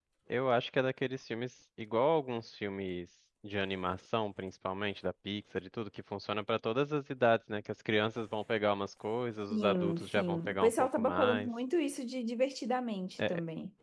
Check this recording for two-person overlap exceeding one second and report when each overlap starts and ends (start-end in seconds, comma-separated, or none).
9.5-11.5